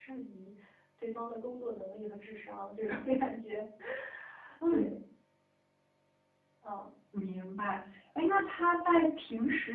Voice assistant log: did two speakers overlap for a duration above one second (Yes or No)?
No